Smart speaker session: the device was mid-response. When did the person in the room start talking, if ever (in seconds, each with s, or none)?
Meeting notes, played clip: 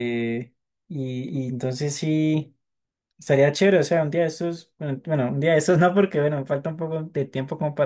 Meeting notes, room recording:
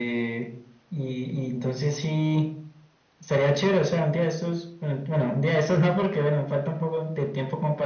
none